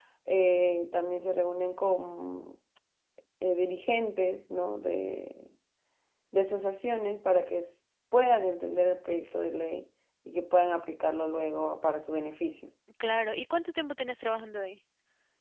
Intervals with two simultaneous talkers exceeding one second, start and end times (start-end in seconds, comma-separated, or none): none